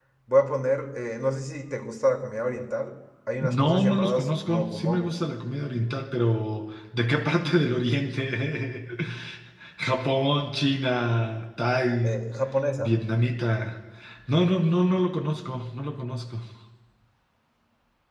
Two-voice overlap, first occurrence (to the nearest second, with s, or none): 3 s